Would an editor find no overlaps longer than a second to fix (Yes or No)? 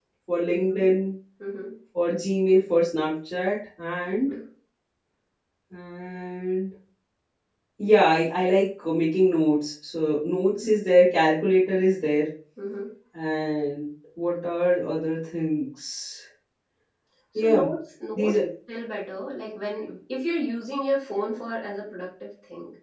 Yes